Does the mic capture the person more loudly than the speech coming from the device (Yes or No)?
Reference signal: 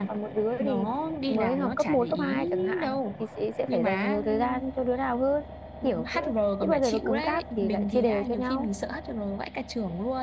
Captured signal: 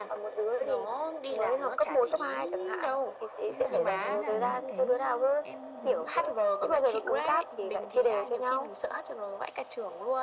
No